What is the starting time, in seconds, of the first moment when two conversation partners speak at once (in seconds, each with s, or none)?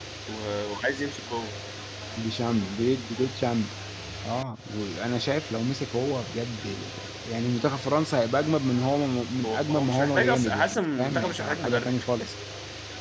9.4 s